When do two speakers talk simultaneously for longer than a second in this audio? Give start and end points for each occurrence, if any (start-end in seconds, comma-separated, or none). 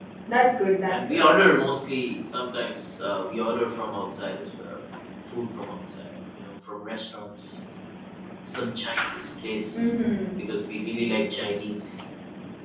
none